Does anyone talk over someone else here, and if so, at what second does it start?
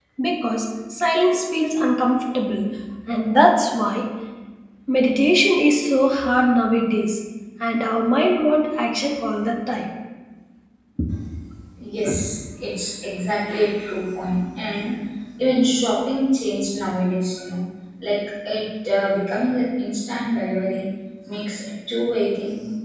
none

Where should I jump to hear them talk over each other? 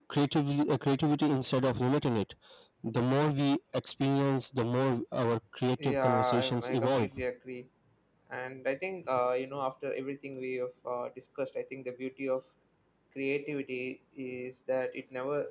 5.8 s

